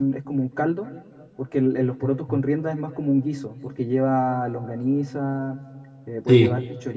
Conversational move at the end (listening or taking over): listening